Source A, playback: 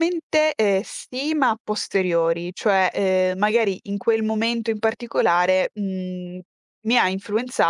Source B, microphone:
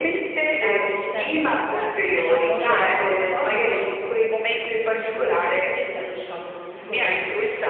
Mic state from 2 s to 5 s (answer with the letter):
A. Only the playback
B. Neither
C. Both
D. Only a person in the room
C